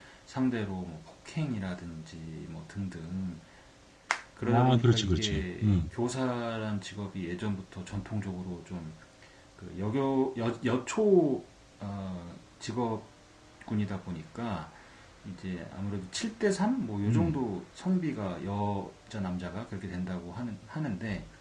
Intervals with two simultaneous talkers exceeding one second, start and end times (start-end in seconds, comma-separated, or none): 4.5-5.8